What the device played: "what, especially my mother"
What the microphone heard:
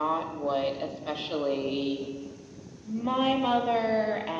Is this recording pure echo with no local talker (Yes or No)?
Yes